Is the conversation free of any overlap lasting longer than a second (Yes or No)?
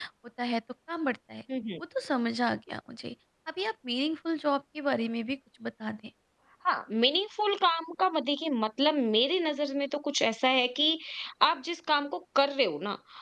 Yes